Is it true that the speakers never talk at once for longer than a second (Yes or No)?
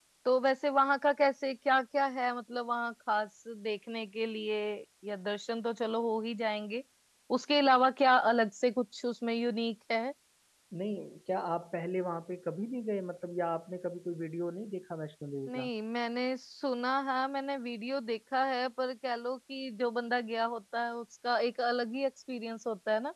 Yes